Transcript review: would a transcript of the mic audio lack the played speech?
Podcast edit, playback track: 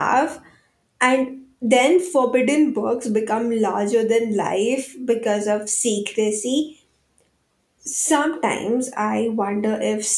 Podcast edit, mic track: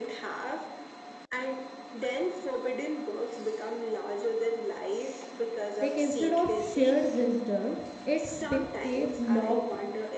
No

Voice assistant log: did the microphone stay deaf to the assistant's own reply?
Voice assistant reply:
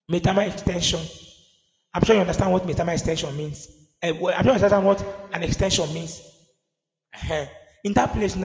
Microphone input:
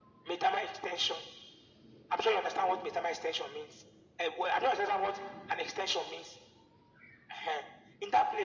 No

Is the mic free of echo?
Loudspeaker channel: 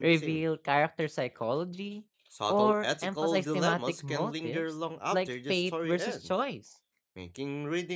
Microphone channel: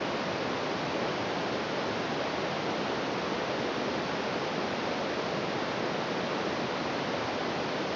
Yes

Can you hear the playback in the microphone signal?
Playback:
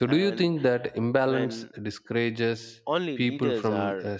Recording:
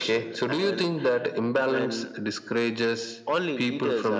Yes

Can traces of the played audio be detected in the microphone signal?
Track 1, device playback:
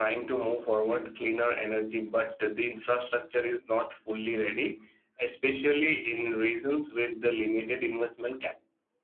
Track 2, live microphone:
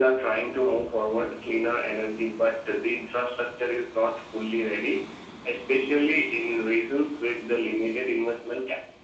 Yes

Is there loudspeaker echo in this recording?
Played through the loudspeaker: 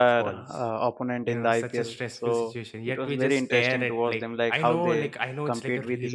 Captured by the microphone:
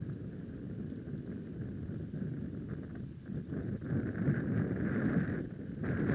No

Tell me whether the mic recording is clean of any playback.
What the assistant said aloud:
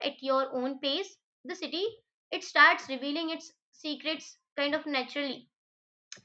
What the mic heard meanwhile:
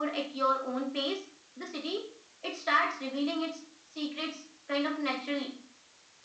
No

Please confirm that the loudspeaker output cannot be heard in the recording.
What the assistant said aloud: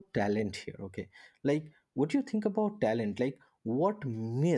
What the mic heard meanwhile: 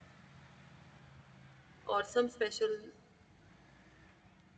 Yes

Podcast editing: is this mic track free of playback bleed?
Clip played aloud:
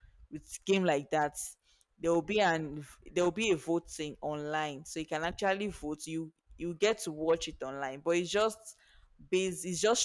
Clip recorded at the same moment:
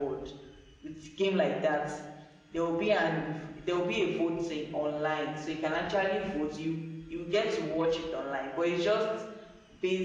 No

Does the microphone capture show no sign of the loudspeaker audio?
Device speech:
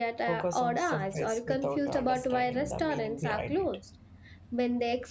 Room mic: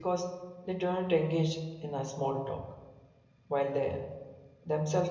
Yes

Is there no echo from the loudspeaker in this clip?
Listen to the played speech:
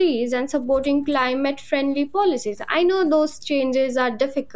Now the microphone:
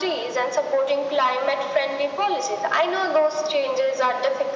No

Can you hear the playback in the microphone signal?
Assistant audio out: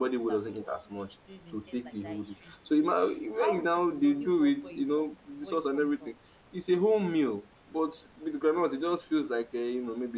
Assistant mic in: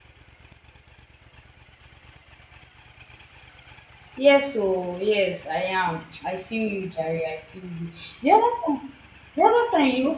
No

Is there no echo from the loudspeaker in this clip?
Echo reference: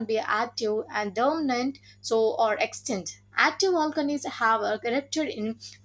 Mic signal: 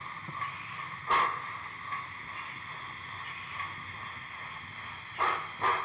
Yes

